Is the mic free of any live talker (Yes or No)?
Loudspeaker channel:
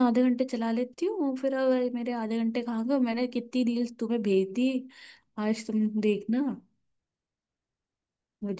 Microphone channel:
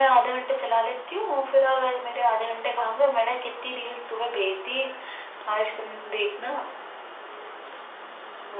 Yes